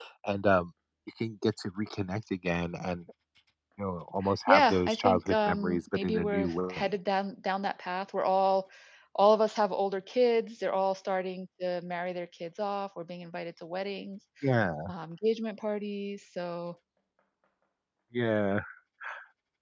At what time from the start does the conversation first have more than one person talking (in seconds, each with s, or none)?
4.5 s